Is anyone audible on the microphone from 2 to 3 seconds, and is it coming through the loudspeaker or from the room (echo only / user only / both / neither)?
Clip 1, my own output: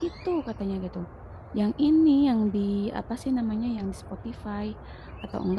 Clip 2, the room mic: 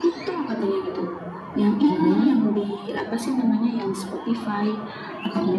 both